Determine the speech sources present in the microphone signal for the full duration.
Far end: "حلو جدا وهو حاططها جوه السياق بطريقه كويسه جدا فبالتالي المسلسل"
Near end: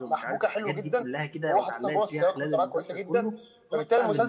both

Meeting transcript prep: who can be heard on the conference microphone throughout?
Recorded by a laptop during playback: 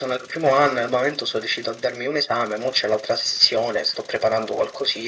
echo only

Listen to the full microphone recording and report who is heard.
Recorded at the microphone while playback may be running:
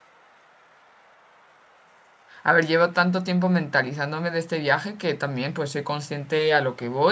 user only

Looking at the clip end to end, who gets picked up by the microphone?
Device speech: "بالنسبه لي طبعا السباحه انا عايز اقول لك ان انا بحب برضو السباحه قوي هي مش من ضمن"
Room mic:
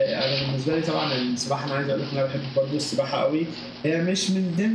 echo only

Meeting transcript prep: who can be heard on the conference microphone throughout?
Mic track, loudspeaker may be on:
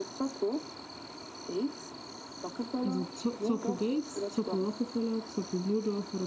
both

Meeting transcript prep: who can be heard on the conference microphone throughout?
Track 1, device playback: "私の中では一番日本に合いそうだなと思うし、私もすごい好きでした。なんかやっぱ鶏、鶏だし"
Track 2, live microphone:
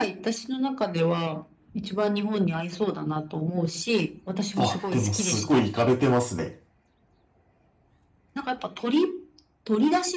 both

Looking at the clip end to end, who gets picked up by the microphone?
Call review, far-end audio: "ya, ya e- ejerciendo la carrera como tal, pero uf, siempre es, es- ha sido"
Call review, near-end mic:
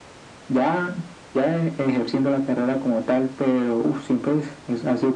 echo only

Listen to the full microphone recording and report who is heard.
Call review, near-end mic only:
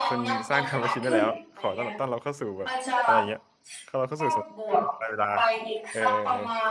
both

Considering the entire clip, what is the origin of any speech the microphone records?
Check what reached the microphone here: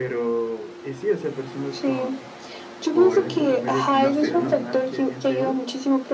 both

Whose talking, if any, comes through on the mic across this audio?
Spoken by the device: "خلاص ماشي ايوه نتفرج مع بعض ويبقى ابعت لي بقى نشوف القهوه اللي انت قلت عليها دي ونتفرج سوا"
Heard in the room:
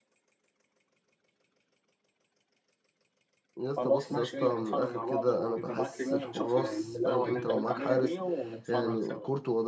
both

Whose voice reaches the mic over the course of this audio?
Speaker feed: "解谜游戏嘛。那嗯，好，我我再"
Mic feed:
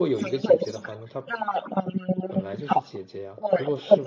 both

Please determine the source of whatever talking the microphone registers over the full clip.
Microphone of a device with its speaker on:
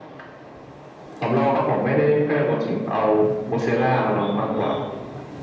both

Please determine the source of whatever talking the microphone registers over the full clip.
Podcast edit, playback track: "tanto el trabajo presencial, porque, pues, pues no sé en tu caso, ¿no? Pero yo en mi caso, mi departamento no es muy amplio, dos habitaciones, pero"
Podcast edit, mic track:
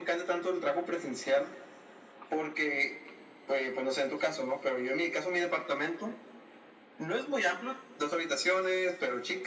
echo only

